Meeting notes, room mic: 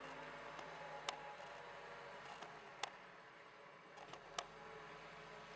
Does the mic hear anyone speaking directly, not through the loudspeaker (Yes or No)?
No